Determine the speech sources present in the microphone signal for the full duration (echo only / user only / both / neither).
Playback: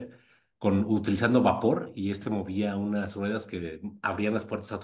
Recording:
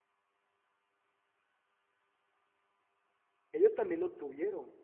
user only